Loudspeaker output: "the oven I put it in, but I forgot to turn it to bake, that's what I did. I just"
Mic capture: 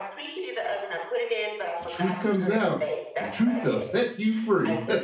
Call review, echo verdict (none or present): present